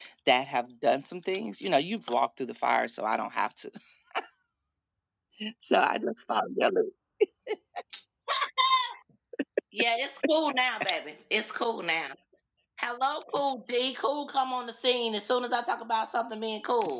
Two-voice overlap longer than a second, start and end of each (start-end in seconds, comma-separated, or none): none